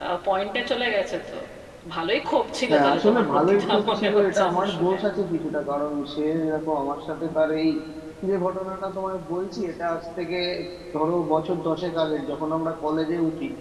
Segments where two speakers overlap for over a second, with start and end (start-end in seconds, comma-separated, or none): 2.7-5.0